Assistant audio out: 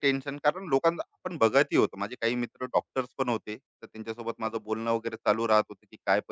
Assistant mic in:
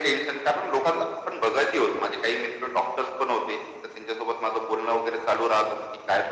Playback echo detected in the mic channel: Yes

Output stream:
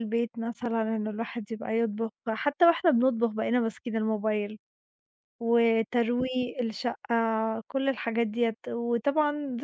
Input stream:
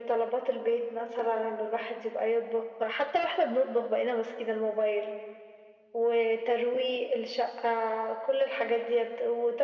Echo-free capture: No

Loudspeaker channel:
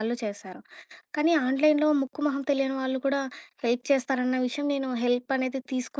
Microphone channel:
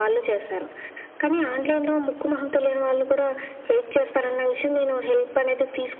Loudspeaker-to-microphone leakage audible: Yes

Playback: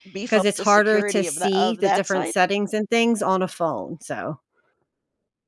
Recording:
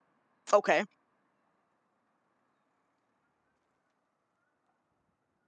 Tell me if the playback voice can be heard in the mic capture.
No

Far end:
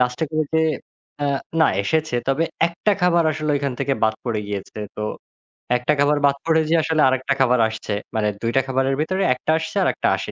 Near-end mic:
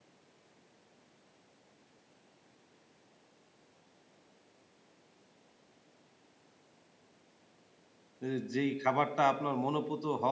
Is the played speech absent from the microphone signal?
Yes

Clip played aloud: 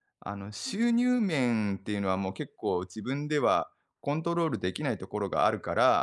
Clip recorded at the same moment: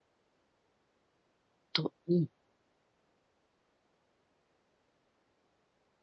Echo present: No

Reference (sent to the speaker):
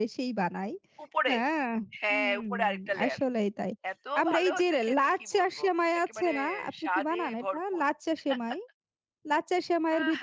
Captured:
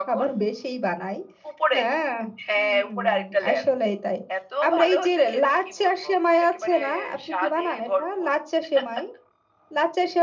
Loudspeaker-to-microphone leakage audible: Yes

